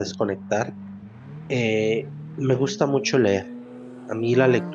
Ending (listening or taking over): listening